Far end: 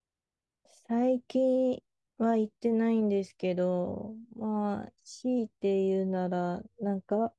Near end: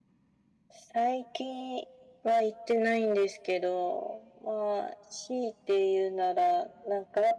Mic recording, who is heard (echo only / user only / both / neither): echo only